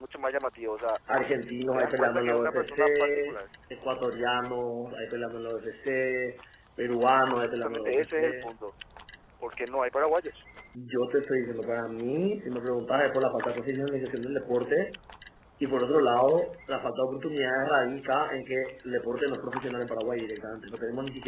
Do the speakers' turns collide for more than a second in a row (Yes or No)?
Yes